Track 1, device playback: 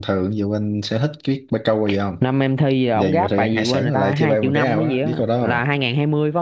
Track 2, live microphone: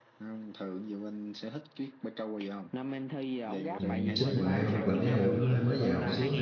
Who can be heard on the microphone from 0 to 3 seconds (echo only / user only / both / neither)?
echo only